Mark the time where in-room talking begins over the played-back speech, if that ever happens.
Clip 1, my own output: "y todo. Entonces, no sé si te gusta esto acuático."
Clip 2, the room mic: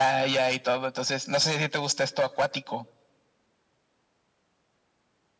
none

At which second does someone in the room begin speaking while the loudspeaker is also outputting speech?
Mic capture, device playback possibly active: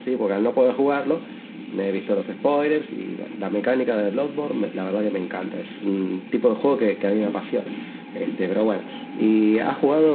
none

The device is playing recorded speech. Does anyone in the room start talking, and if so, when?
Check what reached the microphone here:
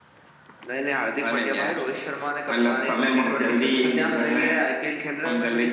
none

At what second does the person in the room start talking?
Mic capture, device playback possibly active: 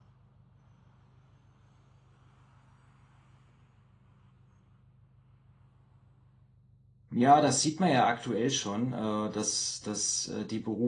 7.1 s

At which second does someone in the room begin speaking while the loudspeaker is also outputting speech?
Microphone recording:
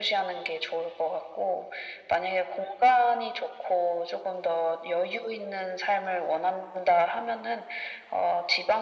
none

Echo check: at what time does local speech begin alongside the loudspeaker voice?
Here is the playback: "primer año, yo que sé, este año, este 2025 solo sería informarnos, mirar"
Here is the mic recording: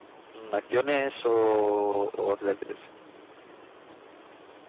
0.3 s

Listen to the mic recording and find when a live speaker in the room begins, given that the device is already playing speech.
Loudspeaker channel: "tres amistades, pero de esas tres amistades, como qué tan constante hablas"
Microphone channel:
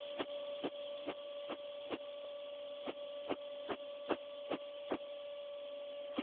none

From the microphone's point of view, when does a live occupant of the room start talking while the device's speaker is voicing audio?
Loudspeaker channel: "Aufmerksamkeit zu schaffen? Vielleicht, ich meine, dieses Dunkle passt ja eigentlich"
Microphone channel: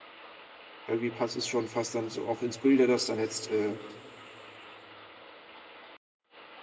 0.8 s

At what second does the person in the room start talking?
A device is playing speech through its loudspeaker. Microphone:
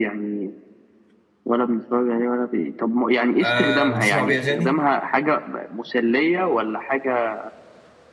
3.4 s

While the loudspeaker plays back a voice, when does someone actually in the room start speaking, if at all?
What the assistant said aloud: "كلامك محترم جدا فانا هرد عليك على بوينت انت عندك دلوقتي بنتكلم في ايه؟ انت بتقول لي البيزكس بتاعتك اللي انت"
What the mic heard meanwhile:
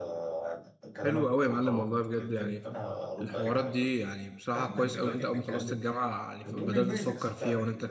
1.0 s

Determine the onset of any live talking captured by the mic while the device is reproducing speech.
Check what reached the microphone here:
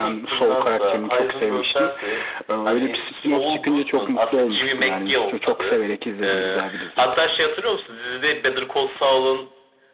none

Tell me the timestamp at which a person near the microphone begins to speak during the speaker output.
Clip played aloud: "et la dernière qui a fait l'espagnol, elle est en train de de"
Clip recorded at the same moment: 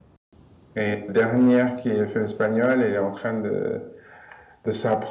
none

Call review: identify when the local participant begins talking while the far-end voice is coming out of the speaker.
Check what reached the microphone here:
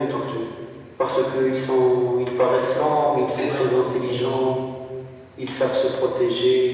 3.1 s

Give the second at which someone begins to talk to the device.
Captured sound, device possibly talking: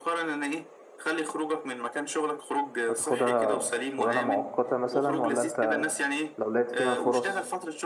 2.9 s

